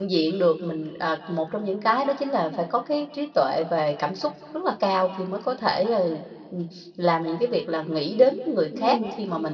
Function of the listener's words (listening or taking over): listening